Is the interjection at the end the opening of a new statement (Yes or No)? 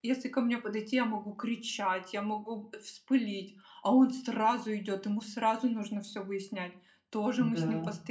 No